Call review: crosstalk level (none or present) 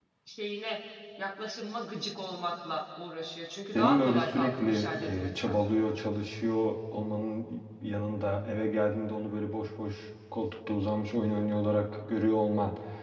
present